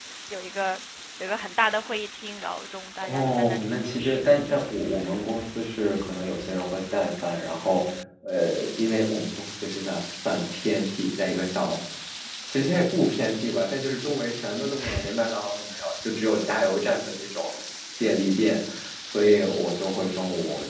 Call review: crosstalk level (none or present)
present